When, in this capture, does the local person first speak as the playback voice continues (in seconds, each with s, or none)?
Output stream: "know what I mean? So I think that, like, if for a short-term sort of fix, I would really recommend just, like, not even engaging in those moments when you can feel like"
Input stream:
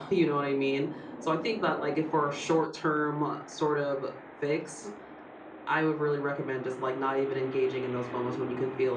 none